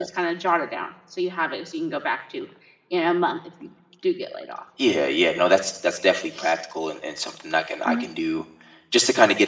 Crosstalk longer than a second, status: none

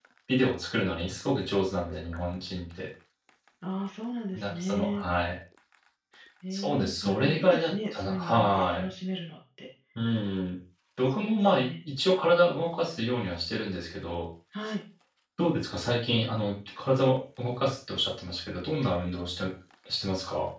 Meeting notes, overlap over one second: present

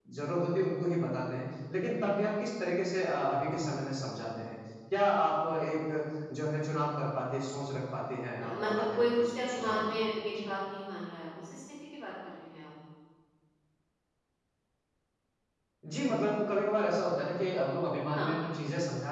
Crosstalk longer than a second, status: present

